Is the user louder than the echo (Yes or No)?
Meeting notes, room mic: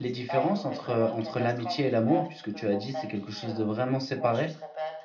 Yes